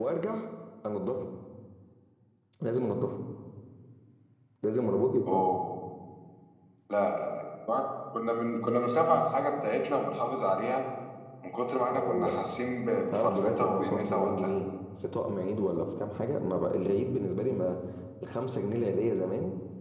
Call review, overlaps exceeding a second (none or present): present